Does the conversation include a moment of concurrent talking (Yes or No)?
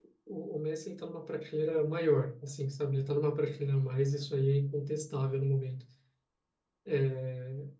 No